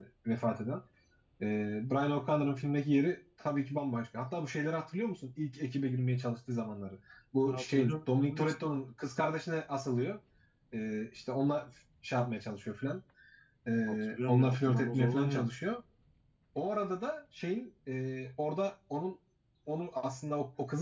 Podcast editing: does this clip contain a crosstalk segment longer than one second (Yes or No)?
Yes